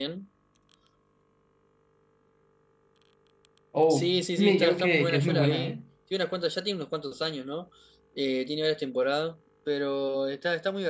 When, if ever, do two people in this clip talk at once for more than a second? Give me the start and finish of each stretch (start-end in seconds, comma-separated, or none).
3.9-5.8